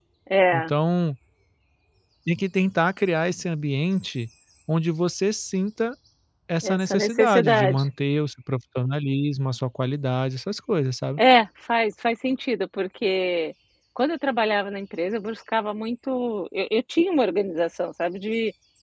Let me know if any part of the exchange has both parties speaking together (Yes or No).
Yes